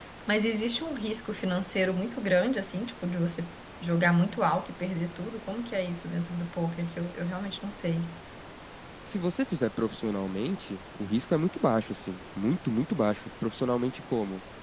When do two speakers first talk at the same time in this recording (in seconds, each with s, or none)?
none